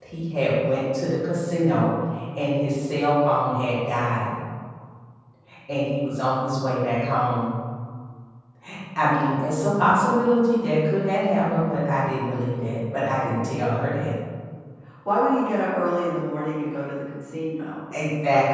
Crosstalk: none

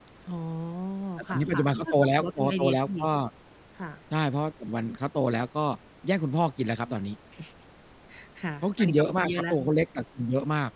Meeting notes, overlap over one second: present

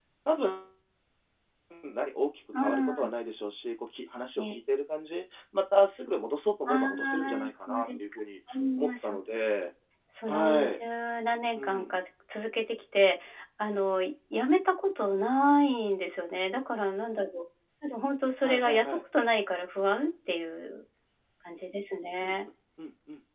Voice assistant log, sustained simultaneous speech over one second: present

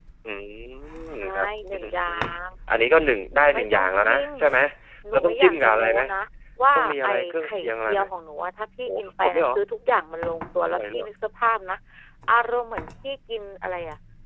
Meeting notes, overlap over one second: present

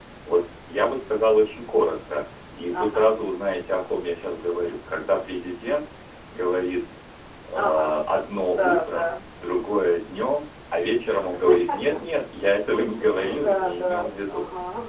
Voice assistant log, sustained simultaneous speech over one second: present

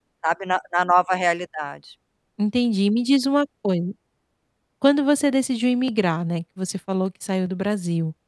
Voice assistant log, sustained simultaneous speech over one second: none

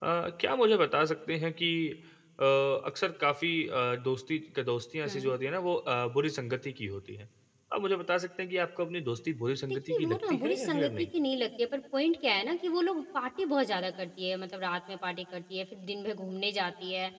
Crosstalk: present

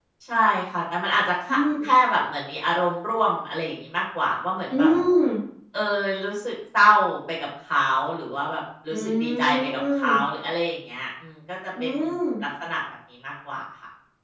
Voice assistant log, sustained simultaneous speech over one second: present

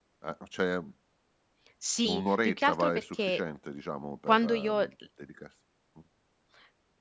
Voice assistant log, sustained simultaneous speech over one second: present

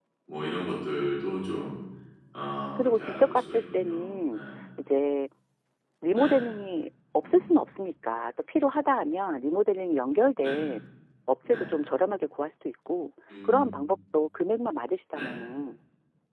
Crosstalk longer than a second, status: present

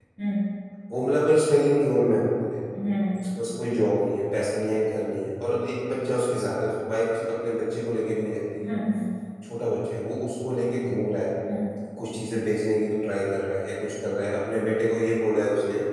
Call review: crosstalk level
none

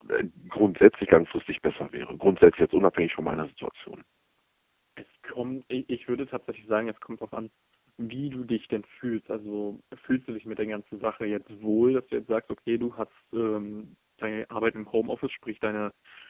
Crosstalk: none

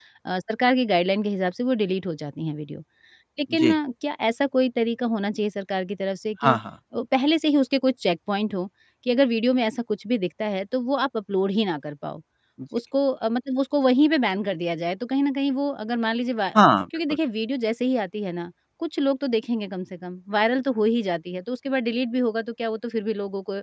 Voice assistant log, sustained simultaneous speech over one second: none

